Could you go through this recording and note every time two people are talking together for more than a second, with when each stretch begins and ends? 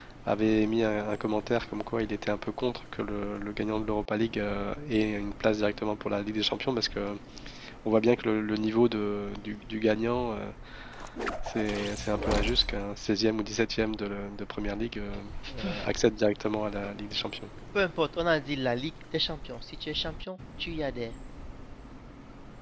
none

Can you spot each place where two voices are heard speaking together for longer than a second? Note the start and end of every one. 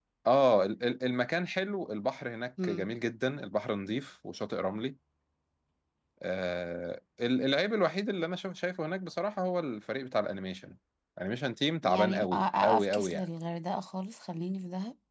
11.8-13.2

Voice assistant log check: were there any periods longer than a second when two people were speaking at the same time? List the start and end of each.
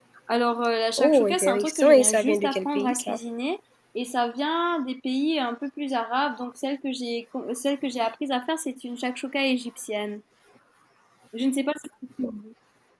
1.0-3.2

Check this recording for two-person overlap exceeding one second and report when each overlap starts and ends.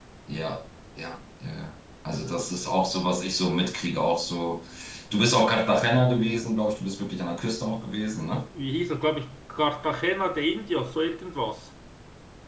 none

